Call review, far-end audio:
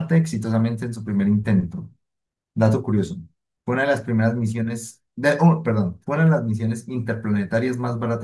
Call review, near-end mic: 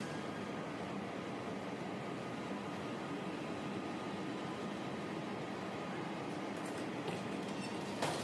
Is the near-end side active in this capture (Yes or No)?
No